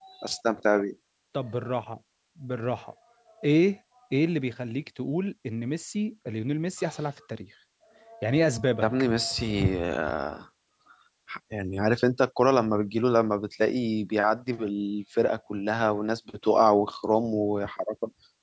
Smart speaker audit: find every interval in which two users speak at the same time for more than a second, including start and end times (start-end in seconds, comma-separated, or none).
none